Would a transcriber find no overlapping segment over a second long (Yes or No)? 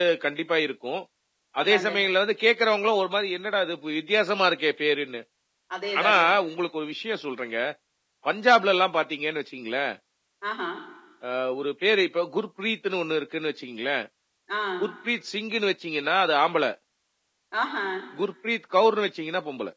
Yes